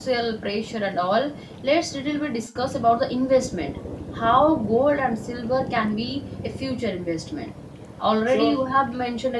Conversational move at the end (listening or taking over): listening